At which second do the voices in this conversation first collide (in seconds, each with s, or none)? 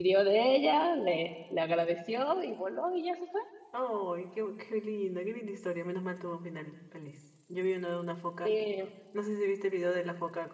none